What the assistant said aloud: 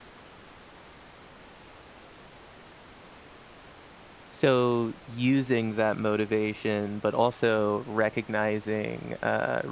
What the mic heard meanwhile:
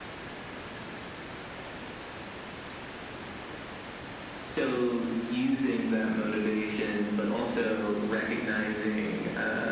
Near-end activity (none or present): none